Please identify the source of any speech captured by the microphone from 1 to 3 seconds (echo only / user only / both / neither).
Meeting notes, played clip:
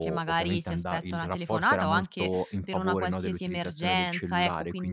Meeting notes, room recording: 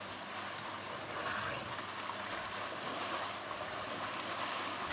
neither